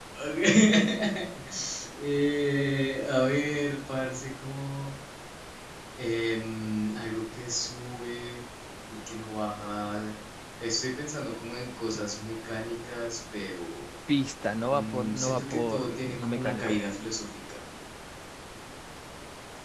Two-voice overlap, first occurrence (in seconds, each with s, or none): 14.7 s